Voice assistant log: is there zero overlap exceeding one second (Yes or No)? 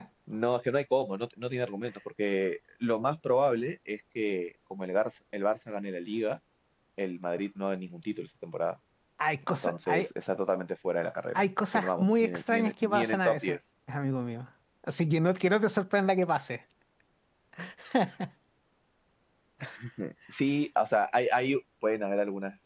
No